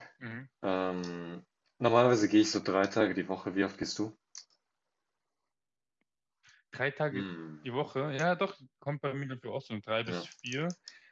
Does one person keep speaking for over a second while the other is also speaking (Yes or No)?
No